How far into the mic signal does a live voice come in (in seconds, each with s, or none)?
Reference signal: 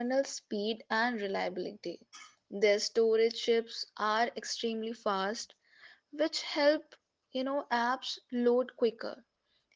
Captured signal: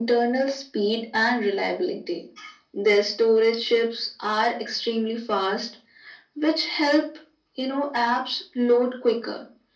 none